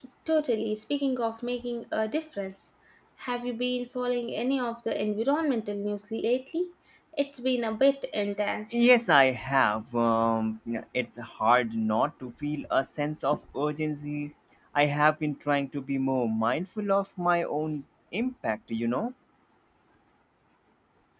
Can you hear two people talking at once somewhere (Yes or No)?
No